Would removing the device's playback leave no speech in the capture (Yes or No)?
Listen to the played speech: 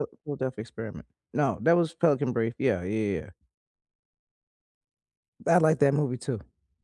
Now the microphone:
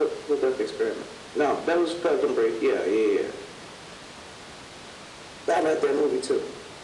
Yes